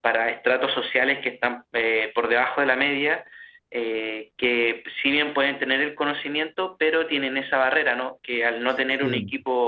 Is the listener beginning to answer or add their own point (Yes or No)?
No